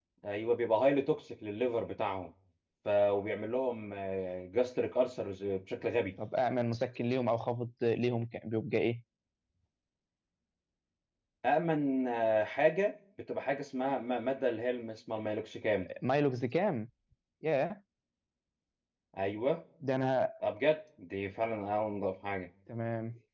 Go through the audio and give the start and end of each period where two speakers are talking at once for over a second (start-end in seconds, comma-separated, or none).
none